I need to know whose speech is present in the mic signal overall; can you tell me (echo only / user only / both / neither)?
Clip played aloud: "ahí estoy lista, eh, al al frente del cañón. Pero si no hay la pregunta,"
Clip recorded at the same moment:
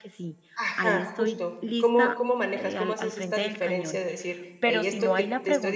both